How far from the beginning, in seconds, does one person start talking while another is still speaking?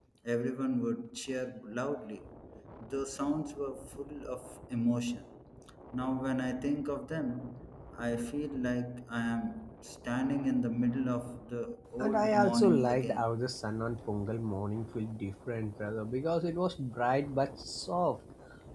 12.0 s

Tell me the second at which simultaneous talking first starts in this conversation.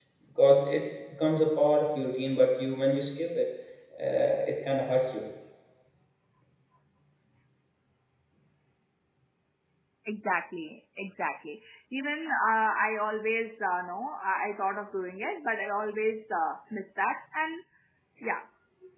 none

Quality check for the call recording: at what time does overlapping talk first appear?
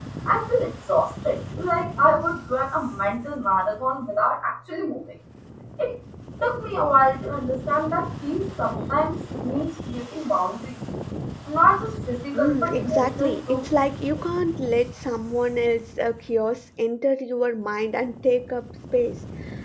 12.3 s

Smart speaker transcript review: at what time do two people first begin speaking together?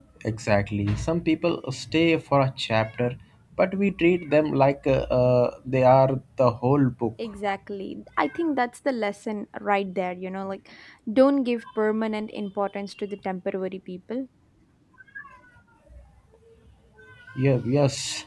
none

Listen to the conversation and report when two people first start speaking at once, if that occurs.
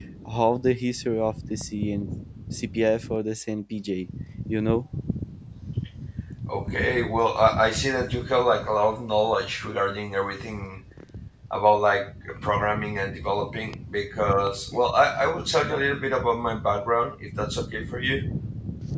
none

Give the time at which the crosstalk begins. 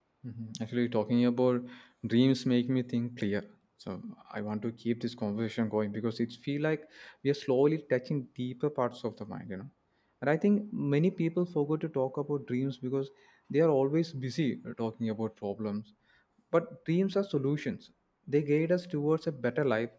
none

